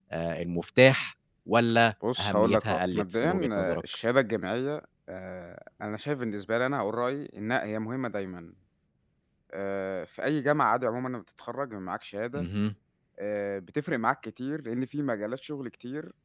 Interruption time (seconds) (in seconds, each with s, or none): 2.0 s